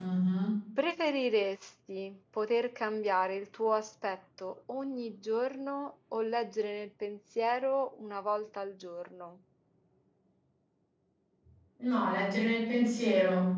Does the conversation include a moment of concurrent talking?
No

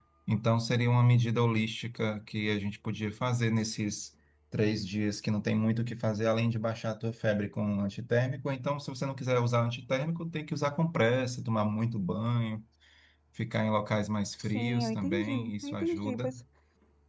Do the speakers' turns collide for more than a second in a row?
Yes, from 14.4 s

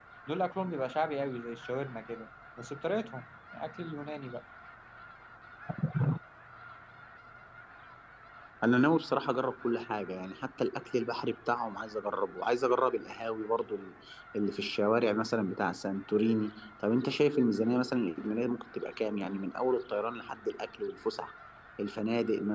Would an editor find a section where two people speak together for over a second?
No

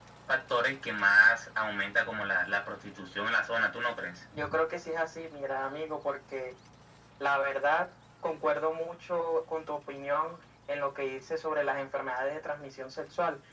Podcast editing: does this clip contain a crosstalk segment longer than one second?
No

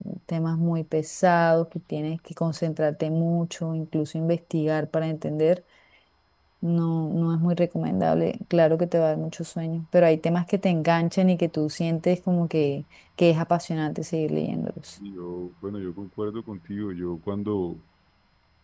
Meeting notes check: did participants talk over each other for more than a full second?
No

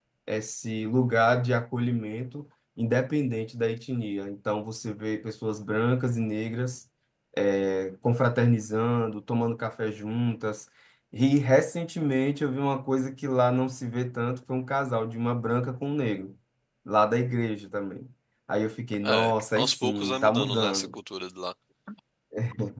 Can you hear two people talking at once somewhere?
Yes, from 19.0 s

